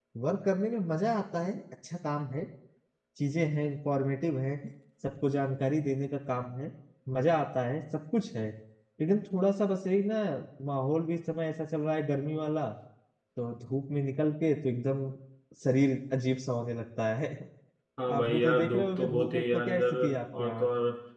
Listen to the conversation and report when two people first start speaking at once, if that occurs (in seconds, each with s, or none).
18.1 s